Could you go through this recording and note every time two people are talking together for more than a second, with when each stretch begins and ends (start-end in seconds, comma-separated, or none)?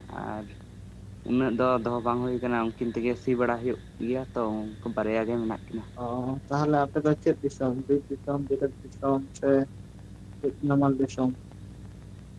none